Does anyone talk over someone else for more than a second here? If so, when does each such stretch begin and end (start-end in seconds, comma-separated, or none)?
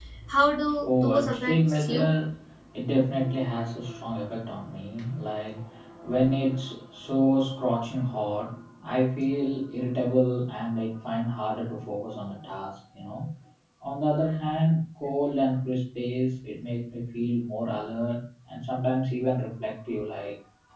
0.8-2.1